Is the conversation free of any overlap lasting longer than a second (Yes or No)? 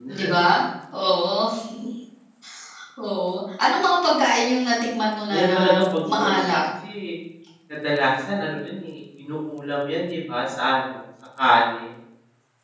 No